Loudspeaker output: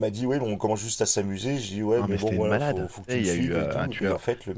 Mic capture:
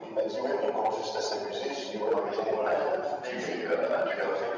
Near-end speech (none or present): none